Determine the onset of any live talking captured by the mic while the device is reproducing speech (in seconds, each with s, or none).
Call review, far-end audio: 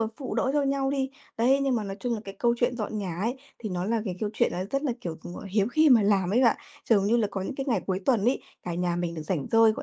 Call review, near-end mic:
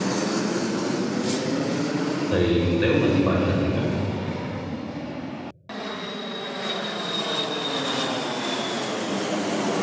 2.3 s